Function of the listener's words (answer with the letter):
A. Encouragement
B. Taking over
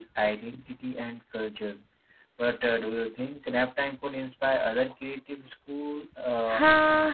B